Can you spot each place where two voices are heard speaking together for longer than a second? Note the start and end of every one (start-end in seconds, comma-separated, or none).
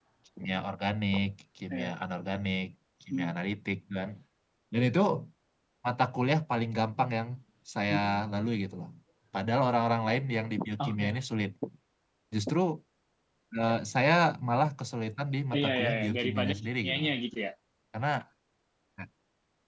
15.6-17.1